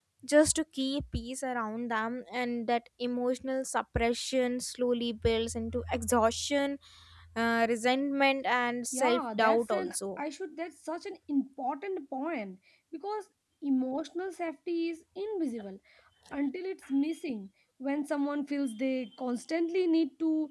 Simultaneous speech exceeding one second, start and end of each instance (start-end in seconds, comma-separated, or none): 8.9-10.2